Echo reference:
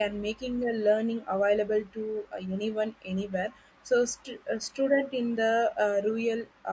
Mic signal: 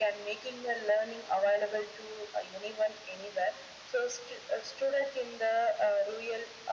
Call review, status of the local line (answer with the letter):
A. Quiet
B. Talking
A